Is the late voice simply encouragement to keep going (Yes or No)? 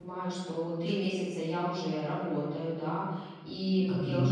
Yes